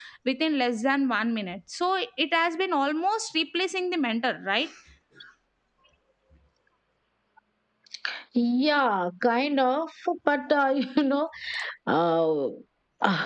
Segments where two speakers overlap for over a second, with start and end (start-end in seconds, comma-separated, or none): none